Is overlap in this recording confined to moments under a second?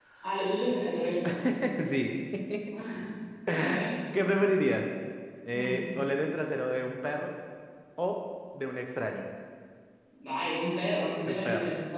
Yes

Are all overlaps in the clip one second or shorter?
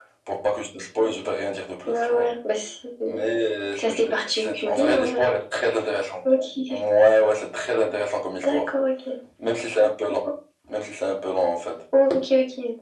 No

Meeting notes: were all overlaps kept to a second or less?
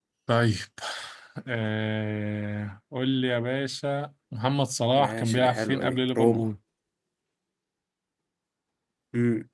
No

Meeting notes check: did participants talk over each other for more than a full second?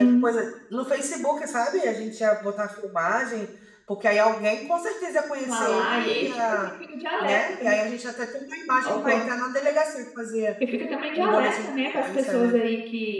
Yes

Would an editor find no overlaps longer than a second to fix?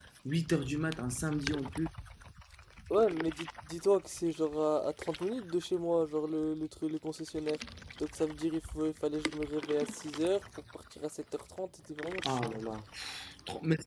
Yes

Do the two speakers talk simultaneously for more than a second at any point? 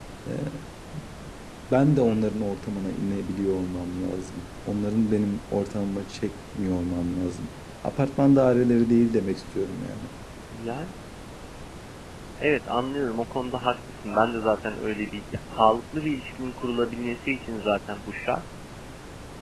No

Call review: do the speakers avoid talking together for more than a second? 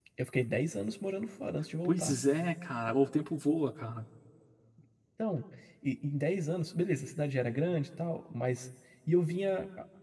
Yes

